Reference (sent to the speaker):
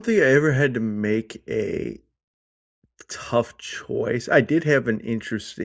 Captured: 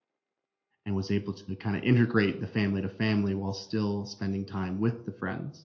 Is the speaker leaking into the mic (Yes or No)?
No